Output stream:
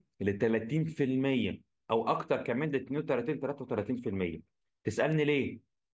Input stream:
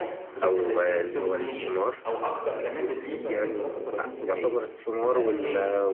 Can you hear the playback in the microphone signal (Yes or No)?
Yes